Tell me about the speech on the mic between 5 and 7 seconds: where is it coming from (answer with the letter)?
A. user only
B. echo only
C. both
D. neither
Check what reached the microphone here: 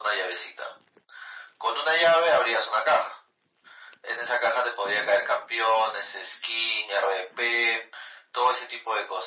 B